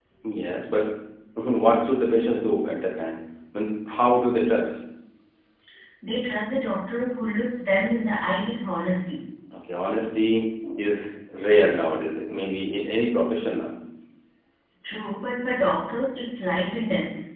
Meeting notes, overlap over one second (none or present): none